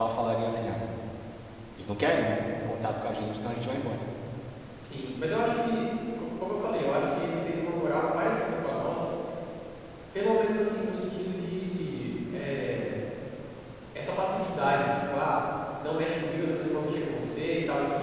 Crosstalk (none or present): none